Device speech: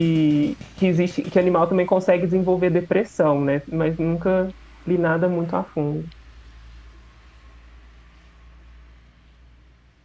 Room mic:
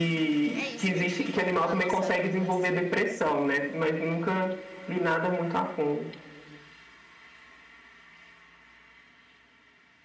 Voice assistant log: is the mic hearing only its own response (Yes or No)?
No